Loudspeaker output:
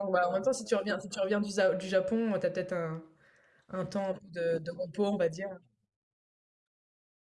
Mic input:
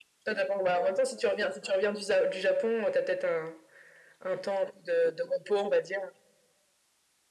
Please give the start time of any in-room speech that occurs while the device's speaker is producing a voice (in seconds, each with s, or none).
none